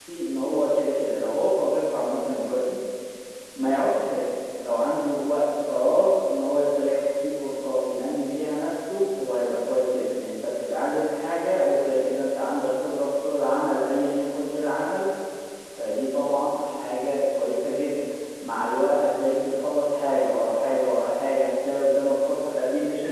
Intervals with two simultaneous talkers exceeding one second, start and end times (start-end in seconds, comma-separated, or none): none